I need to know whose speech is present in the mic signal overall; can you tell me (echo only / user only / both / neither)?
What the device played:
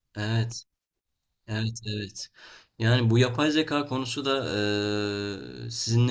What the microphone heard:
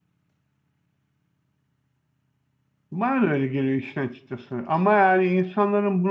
user only